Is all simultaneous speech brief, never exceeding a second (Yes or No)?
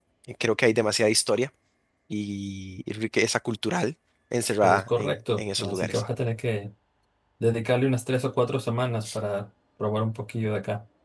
No